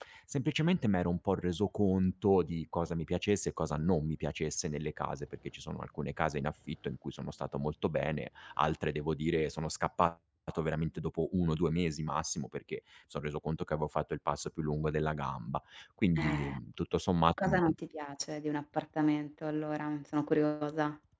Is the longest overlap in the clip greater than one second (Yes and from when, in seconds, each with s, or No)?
No